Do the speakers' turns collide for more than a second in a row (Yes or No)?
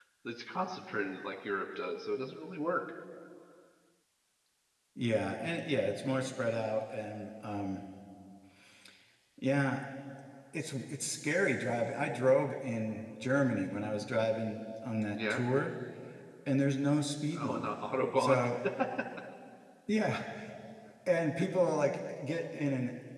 No